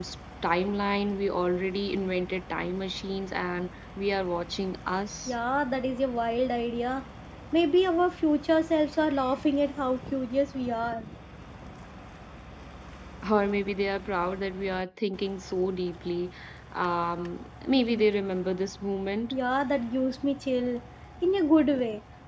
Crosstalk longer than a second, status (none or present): none